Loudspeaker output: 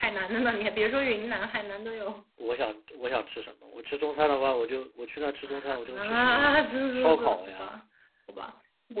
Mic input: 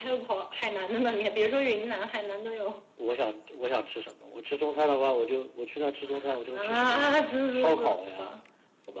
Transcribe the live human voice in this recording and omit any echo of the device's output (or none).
none